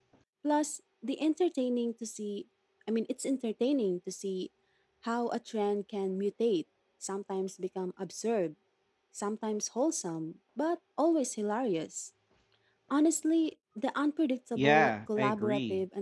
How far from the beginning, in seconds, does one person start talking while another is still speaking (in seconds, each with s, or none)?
14.6 s